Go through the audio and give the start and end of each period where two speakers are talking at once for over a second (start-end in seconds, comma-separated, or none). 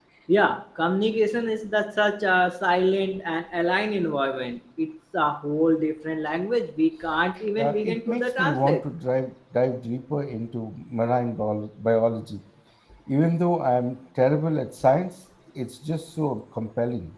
7.6-8.8